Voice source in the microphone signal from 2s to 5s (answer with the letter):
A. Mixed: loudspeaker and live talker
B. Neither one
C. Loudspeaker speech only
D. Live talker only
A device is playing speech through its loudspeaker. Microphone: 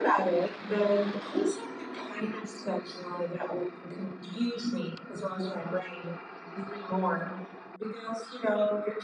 C